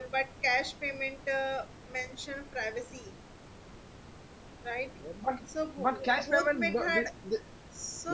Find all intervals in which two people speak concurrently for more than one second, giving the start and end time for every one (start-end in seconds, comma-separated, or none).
5.8-7.1